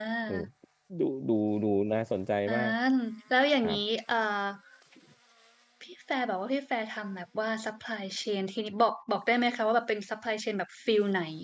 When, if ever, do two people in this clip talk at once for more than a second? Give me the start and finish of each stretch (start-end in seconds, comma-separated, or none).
none